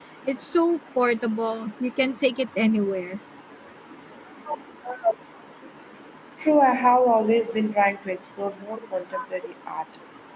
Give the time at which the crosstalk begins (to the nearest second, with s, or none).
none